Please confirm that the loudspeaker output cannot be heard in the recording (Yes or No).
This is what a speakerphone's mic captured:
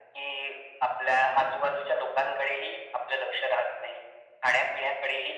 No